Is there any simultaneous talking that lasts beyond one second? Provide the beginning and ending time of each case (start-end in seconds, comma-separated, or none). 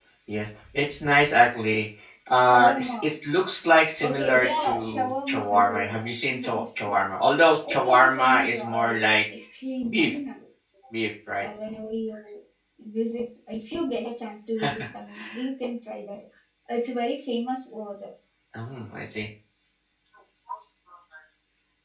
4.0-7.0, 7.7-9.2